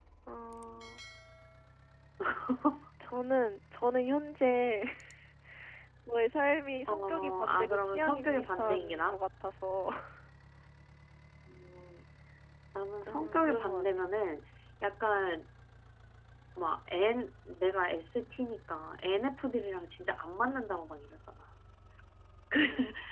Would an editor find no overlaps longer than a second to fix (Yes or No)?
No